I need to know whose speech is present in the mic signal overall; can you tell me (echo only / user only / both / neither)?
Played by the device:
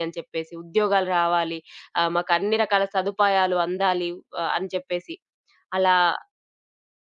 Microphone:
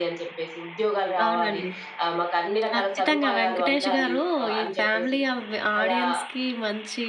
both